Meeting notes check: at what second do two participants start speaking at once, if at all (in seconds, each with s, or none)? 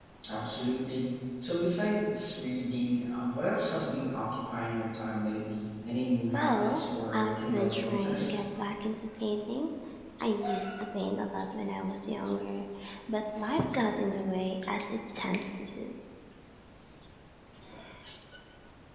6.3 s